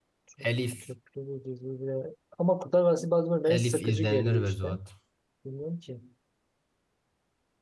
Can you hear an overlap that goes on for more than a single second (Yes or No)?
Yes